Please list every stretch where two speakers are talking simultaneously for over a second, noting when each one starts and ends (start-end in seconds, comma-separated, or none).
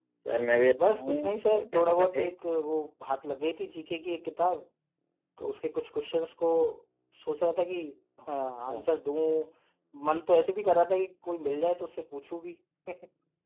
0.8-2.3